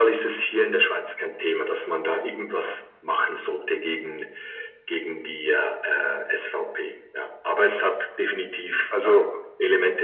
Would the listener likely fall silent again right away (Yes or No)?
Yes